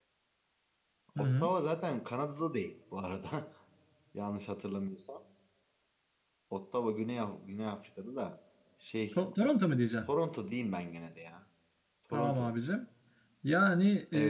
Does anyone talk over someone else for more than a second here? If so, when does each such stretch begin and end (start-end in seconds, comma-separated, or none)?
none